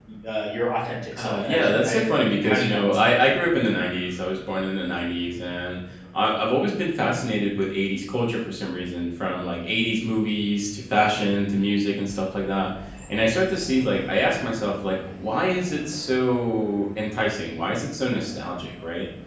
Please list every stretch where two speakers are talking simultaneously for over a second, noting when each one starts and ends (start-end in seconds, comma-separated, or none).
1.2-3.2